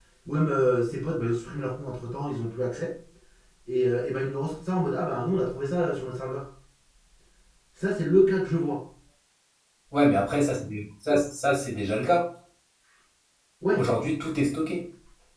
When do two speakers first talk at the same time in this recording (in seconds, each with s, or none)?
none